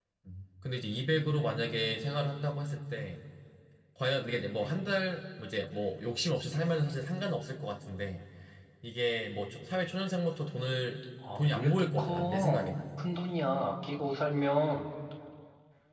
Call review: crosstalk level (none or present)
present